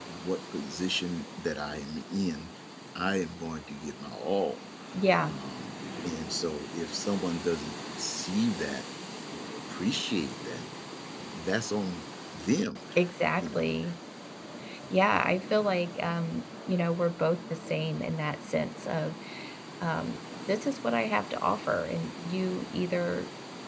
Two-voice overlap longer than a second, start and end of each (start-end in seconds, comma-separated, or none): none